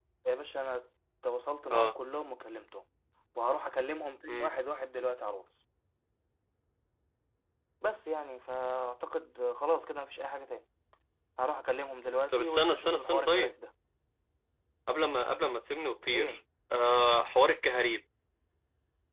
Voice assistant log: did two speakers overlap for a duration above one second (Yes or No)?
Yes